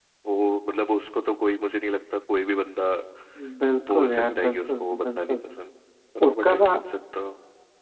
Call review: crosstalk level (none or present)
present